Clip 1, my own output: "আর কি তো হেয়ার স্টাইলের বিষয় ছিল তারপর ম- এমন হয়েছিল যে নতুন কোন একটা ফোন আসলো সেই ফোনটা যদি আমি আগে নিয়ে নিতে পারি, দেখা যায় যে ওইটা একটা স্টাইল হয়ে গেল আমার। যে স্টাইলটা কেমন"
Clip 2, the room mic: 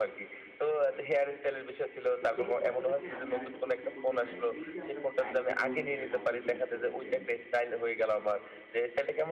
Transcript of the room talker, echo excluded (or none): তো সেক্ষেত্রে আপনার কাছে আমি আরেকটা প্রশ্ন করতে চাই। এই যে আমরা স্টাইলগুলো ধরেন আপনি চেঞ্জ করেছেন